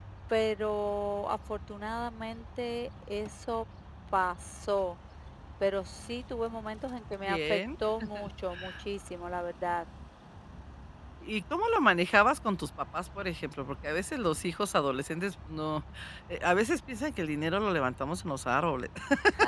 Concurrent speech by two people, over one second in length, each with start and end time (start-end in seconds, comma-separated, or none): none